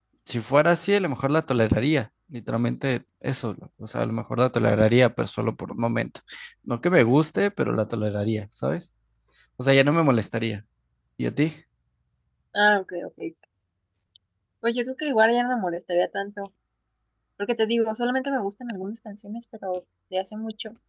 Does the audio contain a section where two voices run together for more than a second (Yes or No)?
No